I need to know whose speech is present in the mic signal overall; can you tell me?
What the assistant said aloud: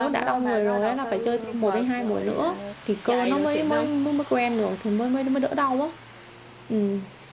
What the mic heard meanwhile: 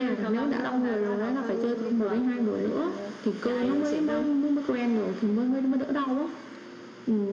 echo only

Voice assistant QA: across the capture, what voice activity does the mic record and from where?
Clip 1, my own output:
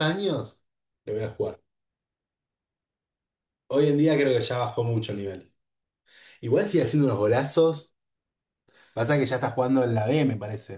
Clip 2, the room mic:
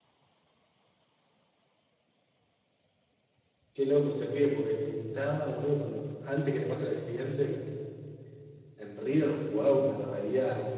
user only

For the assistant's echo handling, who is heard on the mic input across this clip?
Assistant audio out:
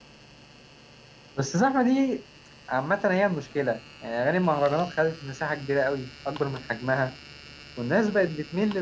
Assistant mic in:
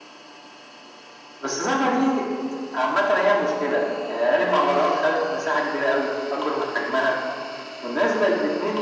echo only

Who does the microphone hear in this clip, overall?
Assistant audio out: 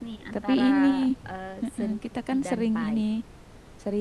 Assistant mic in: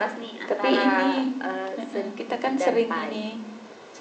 echo only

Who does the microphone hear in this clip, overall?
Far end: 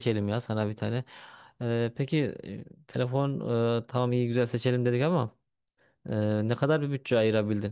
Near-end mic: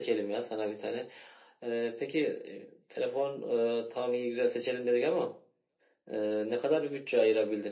echo only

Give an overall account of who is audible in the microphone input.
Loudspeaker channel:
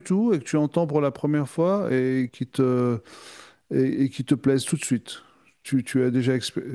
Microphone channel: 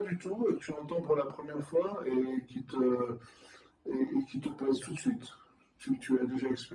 echo only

